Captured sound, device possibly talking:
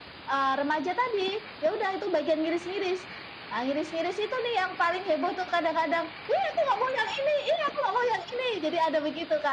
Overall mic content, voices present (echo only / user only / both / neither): echo only